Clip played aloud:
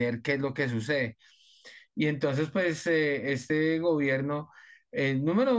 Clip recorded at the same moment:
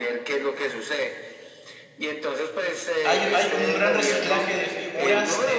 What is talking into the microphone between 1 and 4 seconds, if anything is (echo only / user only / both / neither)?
both